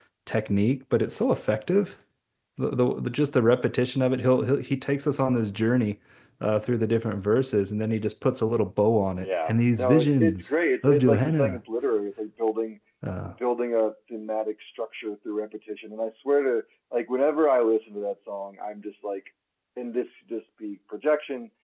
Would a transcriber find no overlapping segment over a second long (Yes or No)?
No